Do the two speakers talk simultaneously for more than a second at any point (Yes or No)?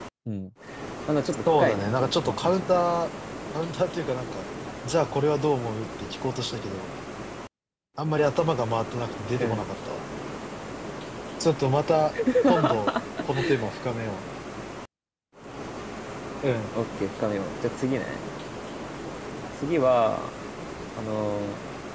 Yes